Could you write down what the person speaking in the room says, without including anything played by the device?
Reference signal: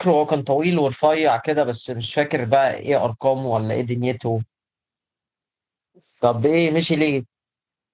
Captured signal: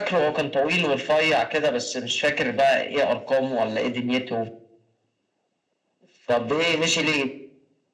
none

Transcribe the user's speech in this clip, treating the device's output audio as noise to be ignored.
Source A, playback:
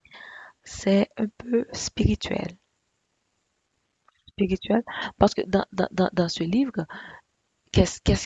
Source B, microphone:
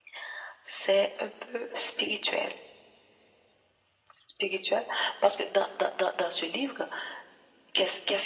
none

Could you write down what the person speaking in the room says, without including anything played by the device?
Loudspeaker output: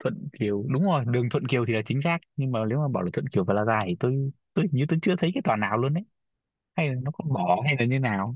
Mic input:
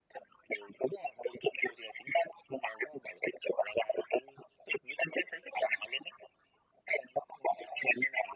none

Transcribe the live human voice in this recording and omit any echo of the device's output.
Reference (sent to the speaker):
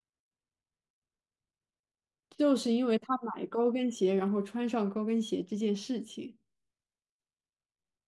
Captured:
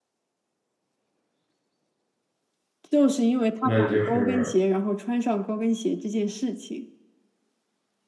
那就是

